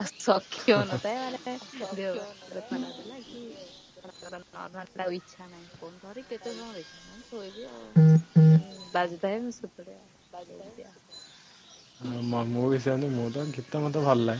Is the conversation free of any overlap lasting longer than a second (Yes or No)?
Yes